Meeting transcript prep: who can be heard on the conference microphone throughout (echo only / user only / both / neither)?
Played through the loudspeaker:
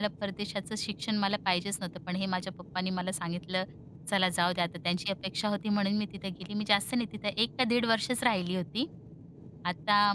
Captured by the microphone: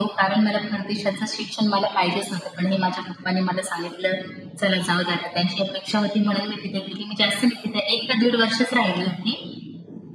echo only